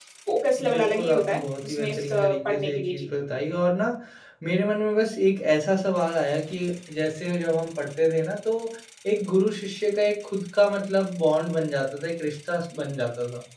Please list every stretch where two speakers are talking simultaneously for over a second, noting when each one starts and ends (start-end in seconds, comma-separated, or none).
0.7-3.1